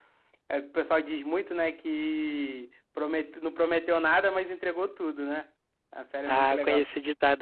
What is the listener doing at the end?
taking over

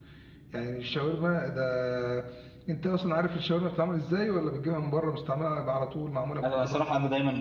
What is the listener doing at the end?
taking over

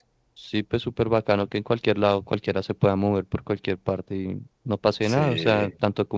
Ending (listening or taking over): listening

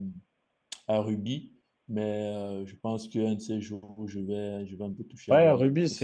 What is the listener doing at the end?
taking over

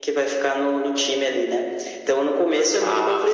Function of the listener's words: listening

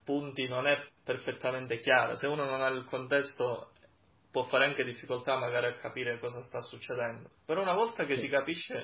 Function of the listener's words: listening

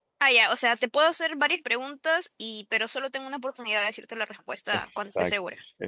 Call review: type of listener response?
taking over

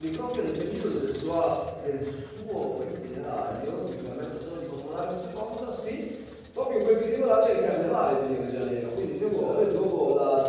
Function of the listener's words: listening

